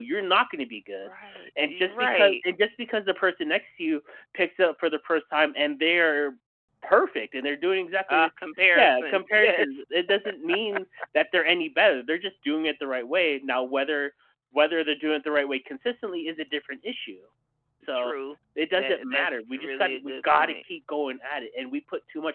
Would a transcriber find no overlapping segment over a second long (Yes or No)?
No